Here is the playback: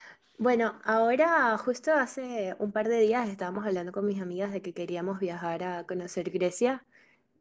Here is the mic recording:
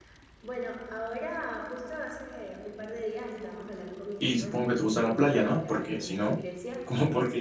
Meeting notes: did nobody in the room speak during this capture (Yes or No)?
No